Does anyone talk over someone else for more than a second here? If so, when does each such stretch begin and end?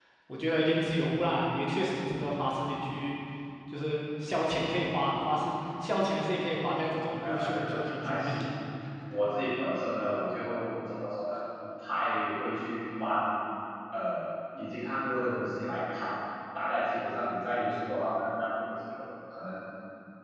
7.2-8.3

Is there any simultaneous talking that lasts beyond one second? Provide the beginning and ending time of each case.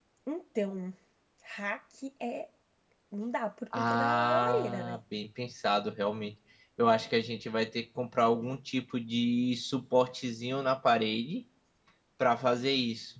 3.8-5.0

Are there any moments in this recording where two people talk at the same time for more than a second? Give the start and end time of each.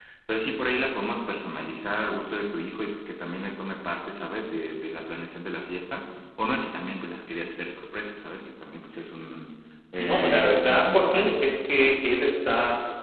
10.0-11.4

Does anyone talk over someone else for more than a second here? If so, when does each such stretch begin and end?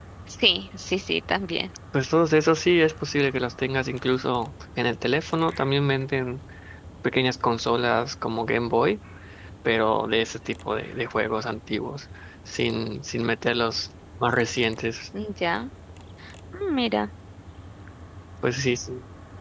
none

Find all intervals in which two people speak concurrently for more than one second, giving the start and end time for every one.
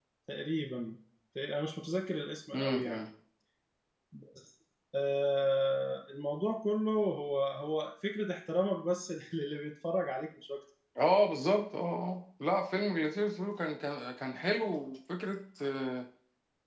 none

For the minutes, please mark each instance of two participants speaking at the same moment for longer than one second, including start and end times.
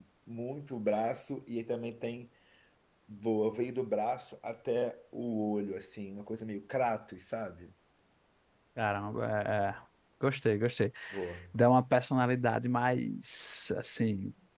none

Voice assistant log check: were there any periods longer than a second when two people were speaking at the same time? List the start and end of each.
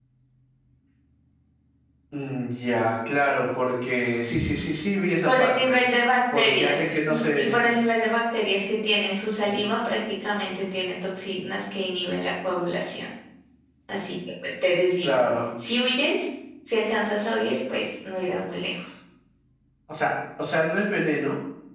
6.3-7.7

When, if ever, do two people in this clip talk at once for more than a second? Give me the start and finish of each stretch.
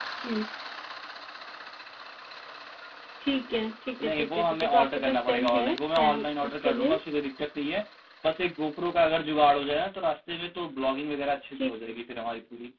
4.0-7.0

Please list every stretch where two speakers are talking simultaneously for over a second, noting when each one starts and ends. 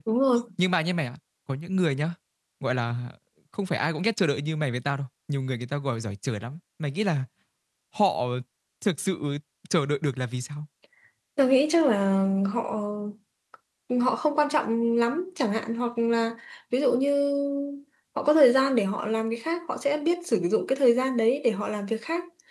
none

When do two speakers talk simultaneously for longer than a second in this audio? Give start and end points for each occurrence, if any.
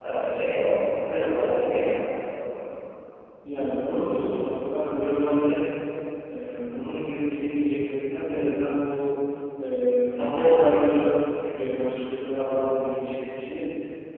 none

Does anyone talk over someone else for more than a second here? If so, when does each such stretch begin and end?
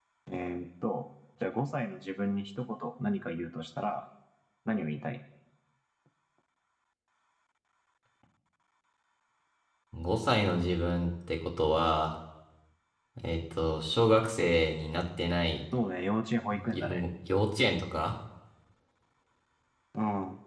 none

